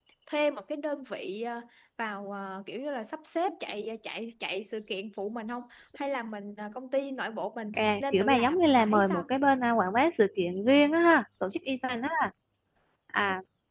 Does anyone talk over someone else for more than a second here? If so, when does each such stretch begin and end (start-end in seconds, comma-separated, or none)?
7.7-9.2